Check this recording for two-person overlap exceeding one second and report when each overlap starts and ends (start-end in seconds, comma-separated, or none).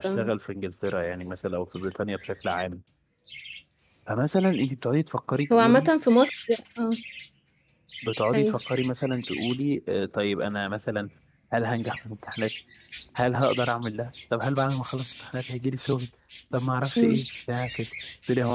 none